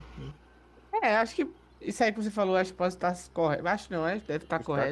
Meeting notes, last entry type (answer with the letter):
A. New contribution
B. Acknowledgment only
B